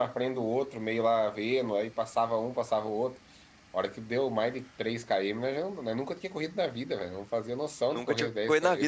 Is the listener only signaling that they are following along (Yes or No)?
No